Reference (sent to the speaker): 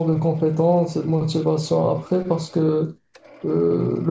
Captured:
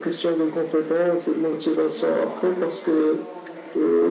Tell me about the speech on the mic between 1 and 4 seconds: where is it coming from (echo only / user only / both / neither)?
both